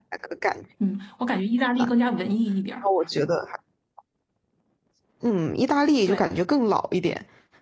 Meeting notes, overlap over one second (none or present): none